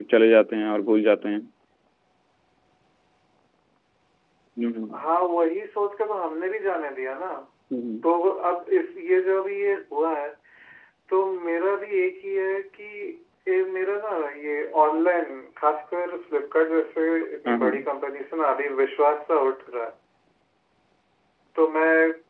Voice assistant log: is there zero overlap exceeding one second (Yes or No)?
Yes